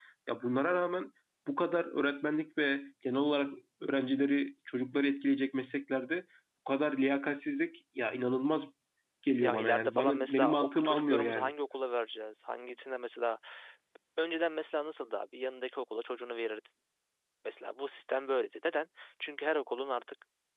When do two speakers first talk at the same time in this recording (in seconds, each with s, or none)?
9.4 s